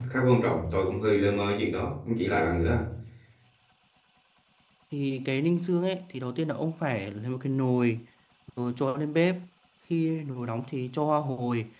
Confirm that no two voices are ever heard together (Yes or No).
Yes